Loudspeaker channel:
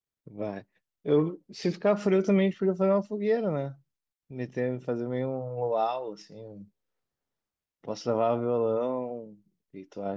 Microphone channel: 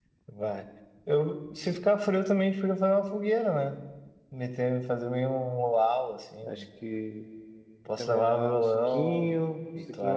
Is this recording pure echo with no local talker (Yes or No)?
No